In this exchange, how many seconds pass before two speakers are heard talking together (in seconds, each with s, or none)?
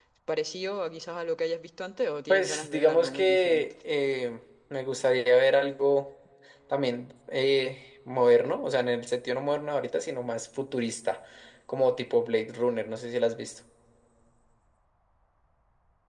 2.3 s